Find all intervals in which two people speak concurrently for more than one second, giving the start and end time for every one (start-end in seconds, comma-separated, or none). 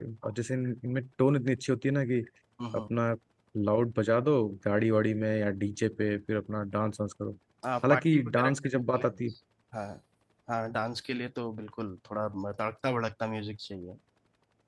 7.8-9.2